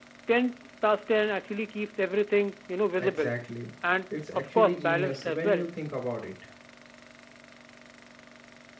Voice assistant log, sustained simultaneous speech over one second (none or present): present